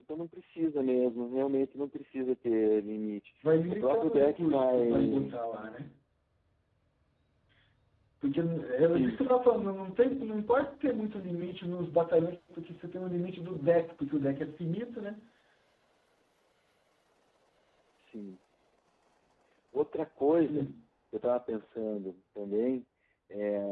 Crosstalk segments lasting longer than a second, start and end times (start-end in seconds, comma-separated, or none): 3.7-5.3